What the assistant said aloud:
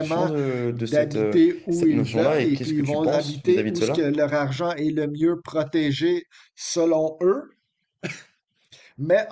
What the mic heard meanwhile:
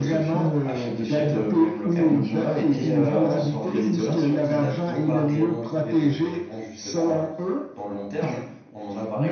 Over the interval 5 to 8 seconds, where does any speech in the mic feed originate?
both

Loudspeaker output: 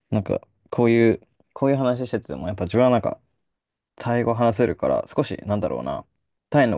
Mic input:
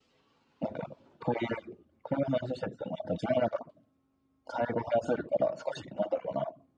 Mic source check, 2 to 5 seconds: echo only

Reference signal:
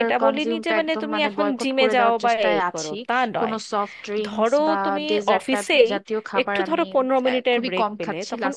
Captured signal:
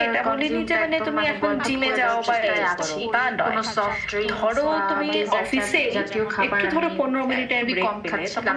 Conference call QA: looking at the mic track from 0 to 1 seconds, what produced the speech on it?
echo only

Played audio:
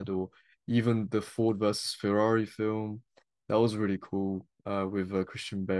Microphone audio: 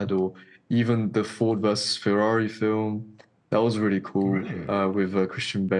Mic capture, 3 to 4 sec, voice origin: echo only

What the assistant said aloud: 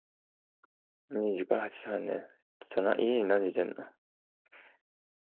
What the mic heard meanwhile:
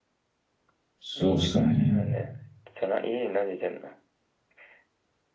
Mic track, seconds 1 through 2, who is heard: both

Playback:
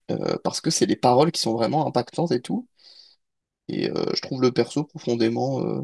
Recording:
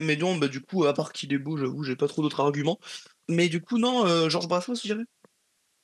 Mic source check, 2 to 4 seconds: user only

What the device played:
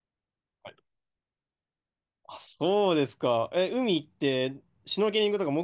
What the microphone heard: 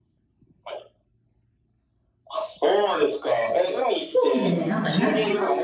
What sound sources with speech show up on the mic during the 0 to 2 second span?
neither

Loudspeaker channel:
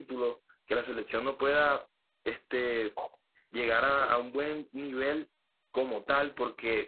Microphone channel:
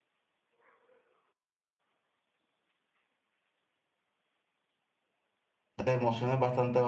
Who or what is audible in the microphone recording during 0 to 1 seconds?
neither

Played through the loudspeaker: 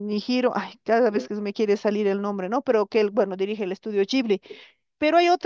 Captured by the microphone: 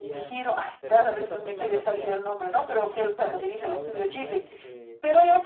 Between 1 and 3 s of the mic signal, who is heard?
both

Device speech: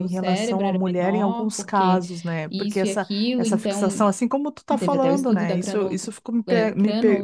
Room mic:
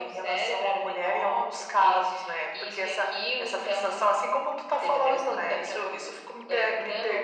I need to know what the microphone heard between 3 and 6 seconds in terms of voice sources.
echo only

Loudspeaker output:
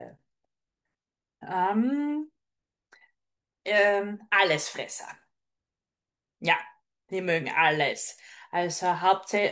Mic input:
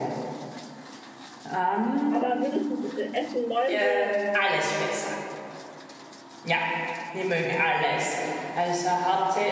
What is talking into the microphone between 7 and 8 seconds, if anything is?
echo only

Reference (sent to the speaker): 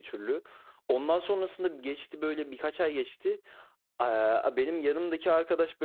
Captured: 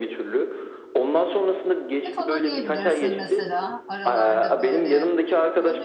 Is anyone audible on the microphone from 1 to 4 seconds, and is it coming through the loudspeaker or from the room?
both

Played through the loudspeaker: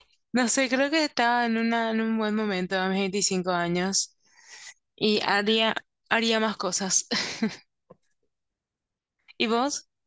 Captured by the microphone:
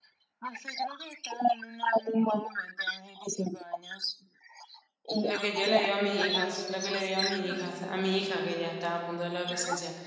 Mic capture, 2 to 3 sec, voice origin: echo only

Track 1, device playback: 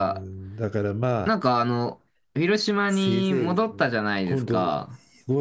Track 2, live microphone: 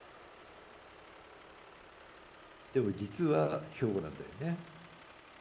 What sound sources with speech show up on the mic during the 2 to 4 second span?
user only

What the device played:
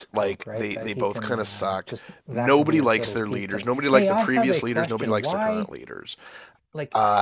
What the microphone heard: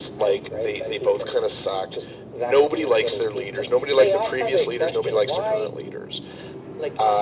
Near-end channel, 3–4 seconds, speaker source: echo only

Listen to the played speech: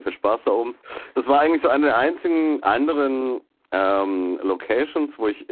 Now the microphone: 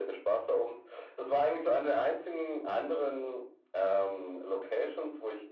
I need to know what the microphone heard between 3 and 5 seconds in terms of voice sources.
echo only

